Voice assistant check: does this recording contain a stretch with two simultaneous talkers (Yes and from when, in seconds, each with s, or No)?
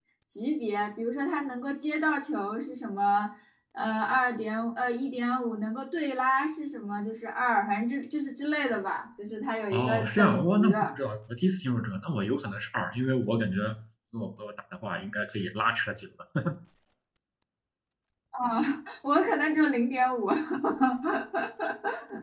Yes, from 9.7 s